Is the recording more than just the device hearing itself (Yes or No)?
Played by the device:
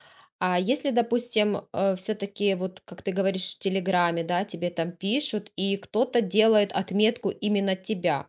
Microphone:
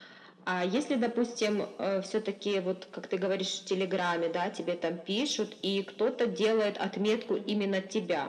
Yes